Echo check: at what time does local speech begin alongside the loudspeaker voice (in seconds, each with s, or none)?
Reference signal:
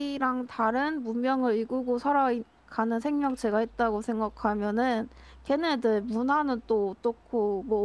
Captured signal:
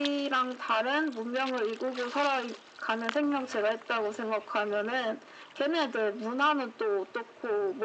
none